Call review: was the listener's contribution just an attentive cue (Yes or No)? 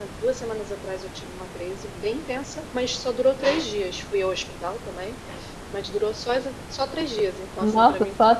No